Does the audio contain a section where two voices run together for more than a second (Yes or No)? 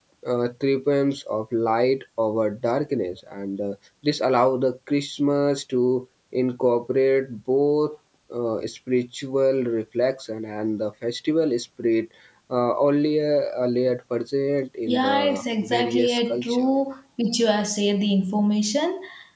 Yes